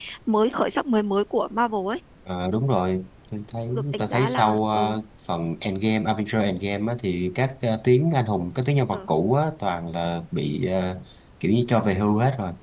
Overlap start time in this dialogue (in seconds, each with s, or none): 3.7 s